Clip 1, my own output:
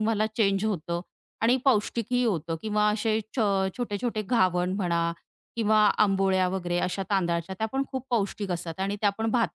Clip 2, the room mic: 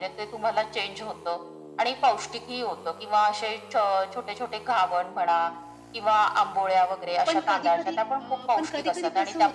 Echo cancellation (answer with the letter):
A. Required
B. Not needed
A